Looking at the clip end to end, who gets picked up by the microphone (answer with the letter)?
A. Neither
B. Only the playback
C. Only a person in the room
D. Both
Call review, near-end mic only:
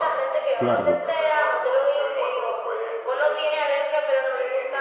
D